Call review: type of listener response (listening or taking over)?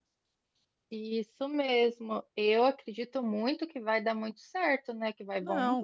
taking over